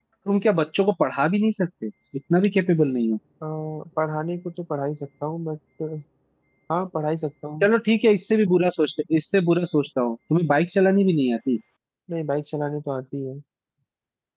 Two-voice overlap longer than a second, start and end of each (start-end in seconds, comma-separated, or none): none